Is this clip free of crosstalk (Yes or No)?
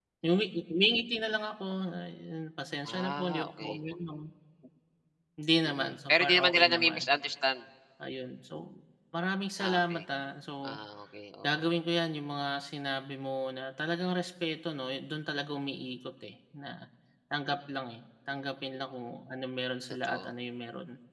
No